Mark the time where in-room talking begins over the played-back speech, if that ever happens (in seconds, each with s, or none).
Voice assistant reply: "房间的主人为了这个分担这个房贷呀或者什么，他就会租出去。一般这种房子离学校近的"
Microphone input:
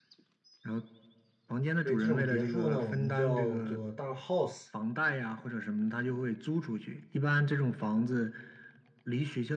1.8 s